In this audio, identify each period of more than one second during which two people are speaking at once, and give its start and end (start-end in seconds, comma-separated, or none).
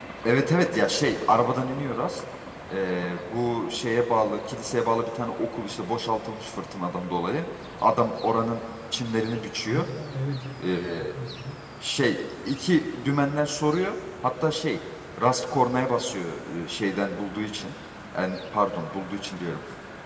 none